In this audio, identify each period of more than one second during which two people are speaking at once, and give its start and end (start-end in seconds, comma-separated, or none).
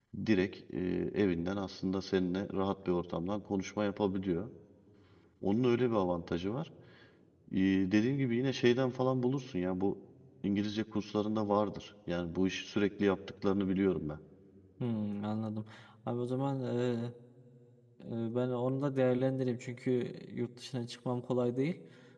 none